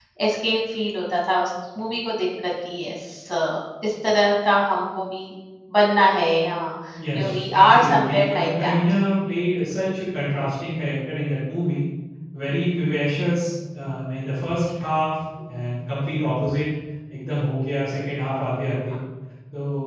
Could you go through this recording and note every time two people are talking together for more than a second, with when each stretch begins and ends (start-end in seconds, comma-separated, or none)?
7.2-8.8